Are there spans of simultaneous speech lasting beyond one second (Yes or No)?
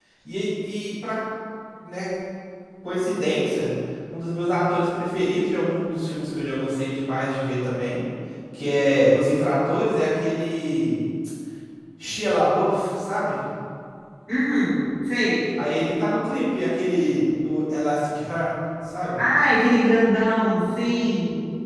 No